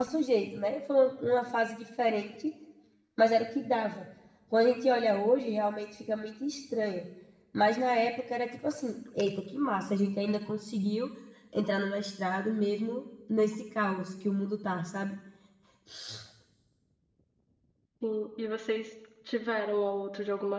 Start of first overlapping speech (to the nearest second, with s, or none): none